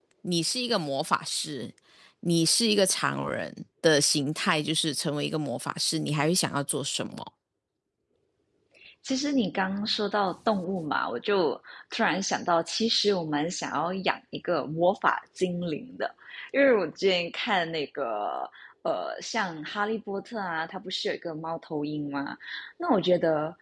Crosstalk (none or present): none